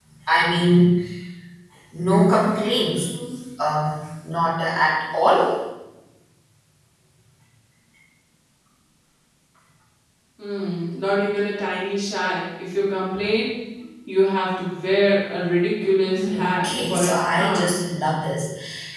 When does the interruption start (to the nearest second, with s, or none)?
16 s